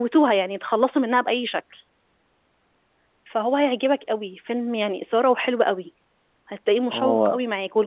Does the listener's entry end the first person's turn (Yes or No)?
No